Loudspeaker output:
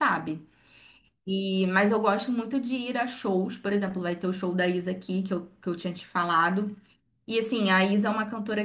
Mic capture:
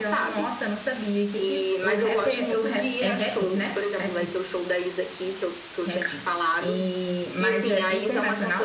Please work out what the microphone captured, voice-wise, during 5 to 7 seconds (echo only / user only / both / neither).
both